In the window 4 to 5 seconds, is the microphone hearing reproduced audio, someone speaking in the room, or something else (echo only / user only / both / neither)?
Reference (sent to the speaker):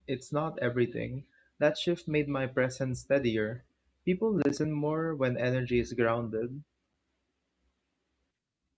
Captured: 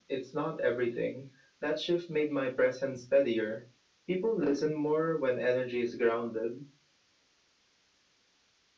echo only